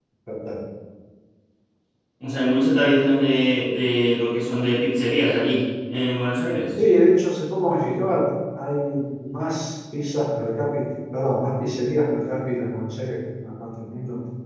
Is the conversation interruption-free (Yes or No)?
Yes